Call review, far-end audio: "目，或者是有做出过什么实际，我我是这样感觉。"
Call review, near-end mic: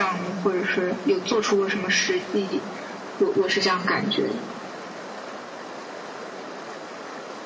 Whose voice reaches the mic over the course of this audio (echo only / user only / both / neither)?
echo only